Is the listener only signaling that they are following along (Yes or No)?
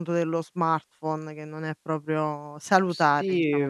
No